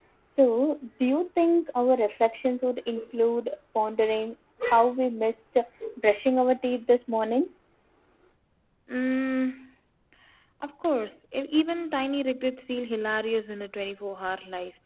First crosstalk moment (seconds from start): none

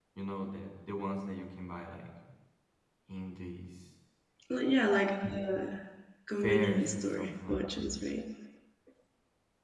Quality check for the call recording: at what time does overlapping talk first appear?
6.4 s

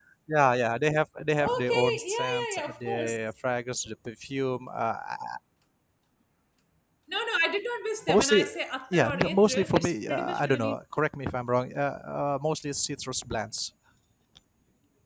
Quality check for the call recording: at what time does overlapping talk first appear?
1.4 s

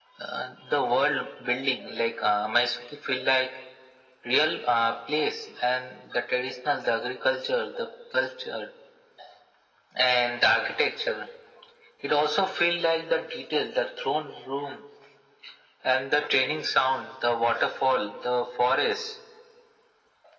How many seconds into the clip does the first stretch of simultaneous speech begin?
none

